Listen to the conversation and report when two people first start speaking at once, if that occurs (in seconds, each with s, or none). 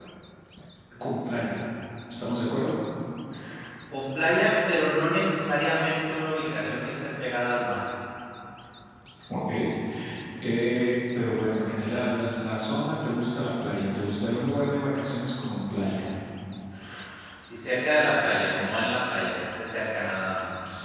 none